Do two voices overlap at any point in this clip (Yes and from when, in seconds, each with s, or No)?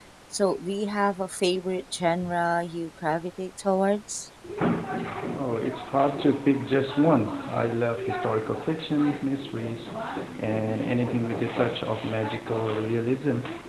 No